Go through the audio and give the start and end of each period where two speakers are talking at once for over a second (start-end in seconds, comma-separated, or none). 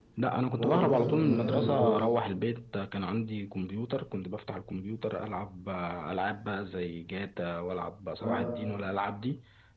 0.5-2.0